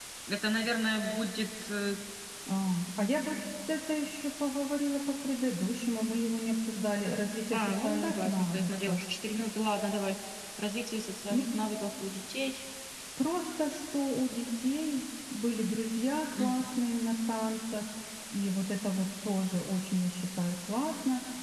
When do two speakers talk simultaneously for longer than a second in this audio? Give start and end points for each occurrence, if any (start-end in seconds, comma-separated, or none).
7.5-9.0